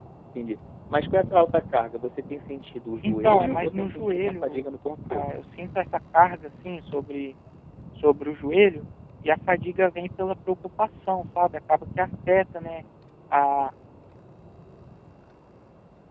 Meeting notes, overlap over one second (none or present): present